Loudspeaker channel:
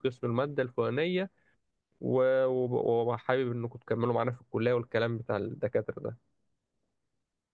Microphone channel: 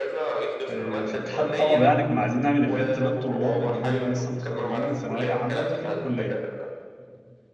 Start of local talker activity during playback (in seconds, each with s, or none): 0.7 s